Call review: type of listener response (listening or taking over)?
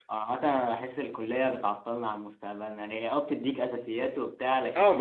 taking over